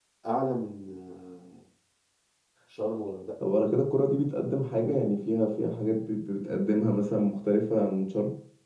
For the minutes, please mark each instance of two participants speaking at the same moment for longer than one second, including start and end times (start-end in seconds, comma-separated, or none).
none